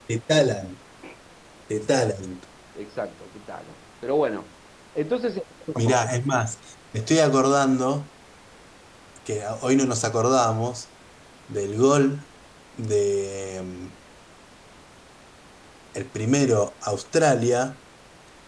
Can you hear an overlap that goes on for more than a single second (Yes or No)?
No